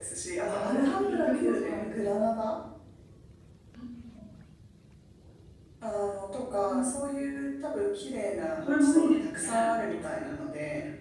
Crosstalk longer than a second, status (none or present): present